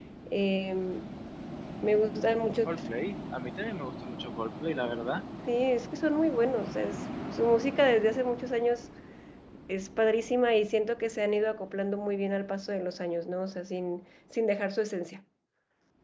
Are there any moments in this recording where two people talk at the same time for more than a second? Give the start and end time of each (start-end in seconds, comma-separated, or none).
none